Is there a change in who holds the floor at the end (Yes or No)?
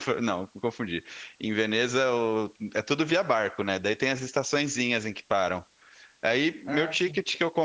No